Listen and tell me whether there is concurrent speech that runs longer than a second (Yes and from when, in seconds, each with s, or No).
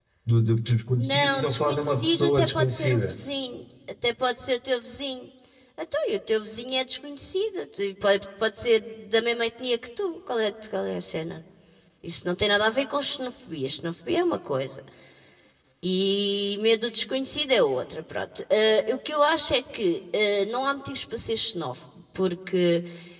Yes, from 1.0 s